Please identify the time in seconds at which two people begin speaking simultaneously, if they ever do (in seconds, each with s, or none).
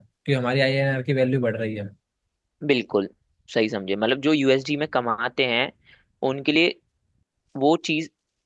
none